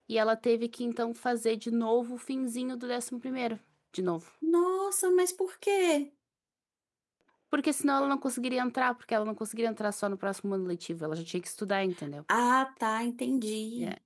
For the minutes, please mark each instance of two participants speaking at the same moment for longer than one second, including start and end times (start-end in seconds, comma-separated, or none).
none